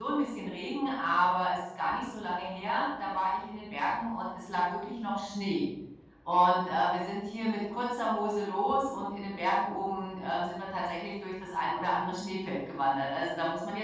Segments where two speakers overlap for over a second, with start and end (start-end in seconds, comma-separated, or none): none